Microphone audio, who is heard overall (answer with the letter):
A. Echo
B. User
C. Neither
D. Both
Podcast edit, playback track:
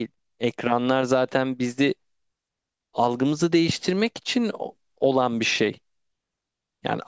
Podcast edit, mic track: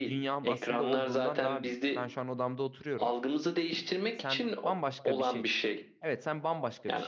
D